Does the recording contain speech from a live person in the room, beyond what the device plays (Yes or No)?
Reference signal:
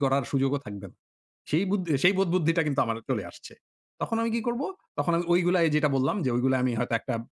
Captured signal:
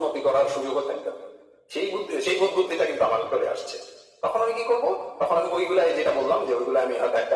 No